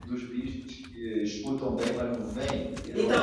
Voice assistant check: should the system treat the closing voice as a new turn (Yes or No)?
Yes